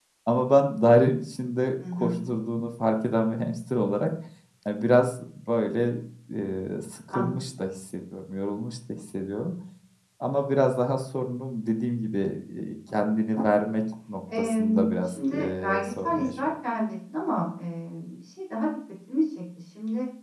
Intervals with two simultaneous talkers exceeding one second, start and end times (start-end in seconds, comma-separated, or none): 14.4-16.5